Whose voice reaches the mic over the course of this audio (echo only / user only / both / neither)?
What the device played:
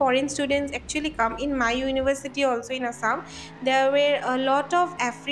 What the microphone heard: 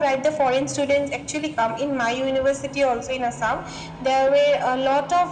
echo only